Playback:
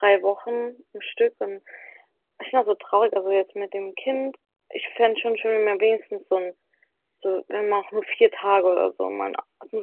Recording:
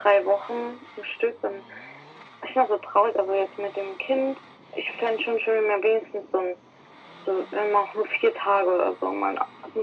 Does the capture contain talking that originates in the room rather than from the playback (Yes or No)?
No